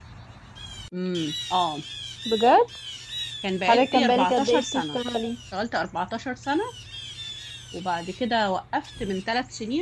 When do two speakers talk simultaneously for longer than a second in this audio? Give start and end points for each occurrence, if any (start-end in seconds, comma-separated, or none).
3.7-5.0